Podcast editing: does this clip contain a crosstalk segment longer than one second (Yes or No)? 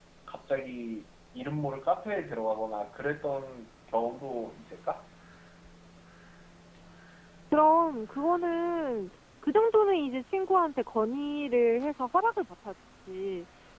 No